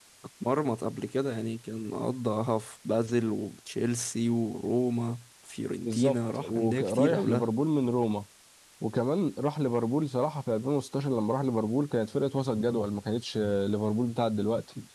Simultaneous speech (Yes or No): Yes